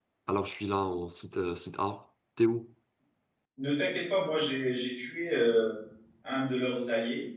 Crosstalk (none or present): none